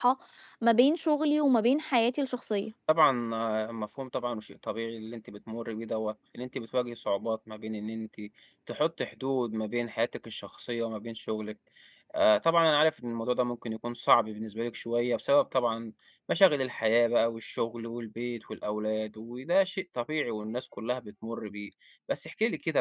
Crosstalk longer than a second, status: none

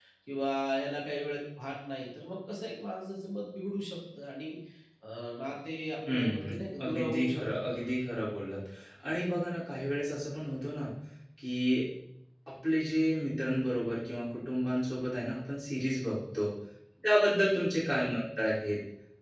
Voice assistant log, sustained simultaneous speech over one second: present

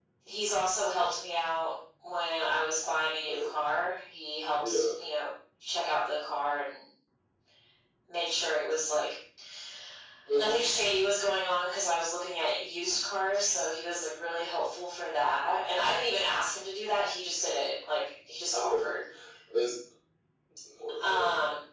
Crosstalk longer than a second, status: none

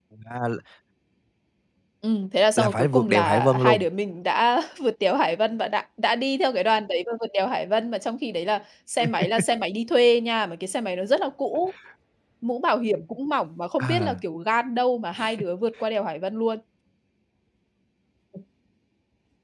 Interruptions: present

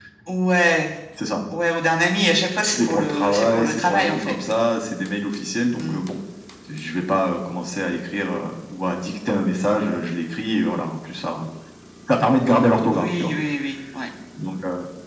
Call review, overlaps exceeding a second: present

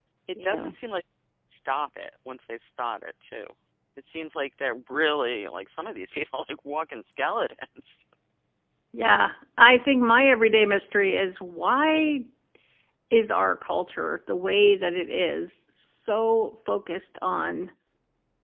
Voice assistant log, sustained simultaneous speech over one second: none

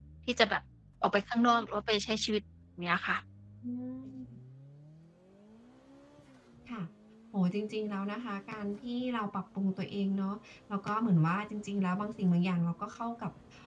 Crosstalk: none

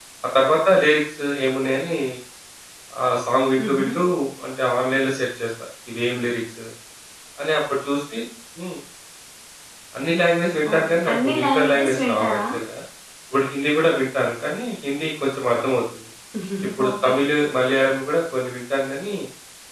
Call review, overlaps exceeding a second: present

